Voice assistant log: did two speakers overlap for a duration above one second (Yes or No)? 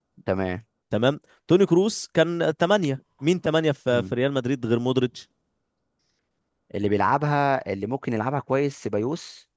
No